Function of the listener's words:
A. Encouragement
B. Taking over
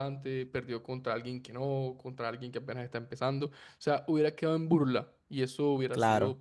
A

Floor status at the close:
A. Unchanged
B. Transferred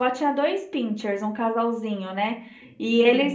A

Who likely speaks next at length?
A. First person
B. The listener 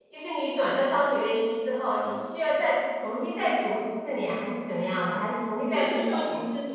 B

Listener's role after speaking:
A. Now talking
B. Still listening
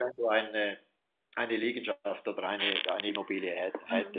A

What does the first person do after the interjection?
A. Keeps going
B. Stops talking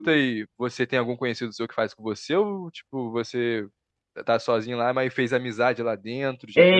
B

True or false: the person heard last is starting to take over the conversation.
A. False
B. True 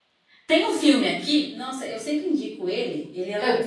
A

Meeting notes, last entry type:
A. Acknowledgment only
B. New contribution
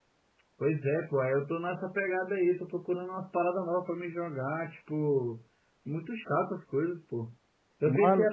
A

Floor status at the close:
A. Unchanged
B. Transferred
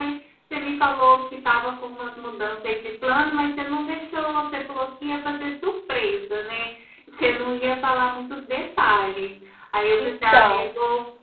A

